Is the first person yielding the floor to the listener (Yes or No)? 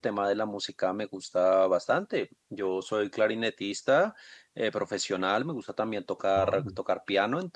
No